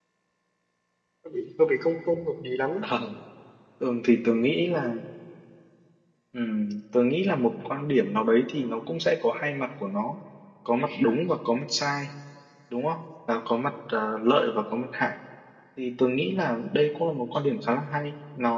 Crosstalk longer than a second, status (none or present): none